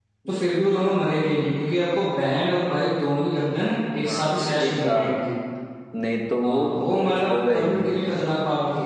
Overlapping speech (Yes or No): Yes